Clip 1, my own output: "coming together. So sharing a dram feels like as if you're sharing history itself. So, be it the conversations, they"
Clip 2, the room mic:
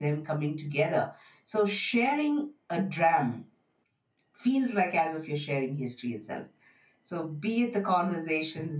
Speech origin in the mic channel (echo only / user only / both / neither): echo only